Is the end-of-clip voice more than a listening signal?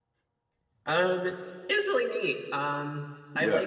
No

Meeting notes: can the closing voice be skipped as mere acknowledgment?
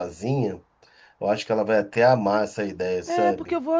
No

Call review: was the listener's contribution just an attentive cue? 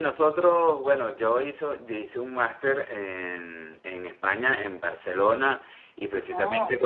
Yes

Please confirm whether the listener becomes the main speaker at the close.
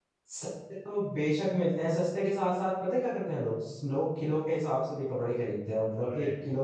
No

